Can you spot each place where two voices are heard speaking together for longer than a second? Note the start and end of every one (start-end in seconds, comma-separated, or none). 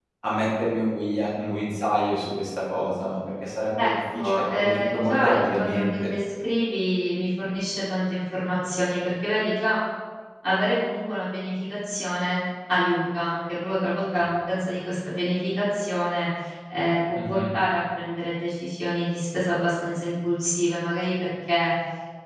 3.8-6.1